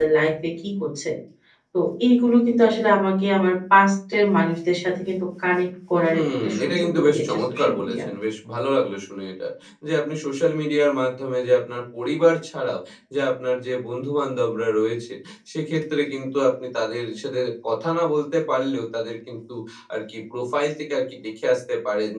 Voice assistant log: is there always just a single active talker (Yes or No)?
No